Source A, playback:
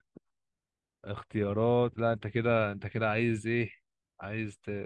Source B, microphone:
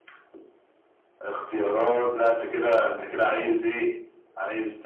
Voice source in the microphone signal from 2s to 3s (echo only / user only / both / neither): echo only